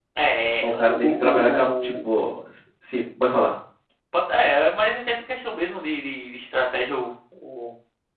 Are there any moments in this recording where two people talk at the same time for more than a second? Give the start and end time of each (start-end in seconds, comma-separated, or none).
0.6-2.3